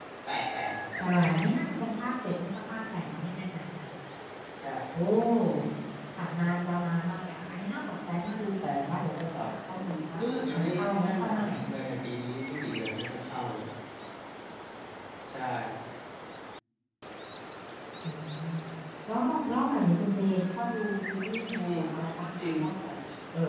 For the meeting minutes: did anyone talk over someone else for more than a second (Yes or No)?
Yes